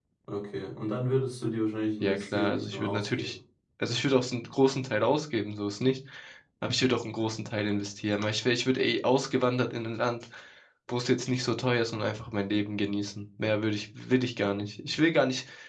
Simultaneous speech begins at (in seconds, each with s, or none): 2.0 s